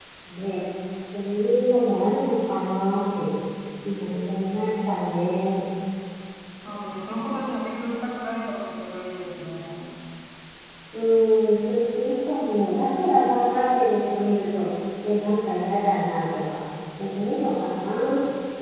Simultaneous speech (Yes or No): No